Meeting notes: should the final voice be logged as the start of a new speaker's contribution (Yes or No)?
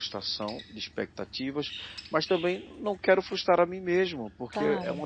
No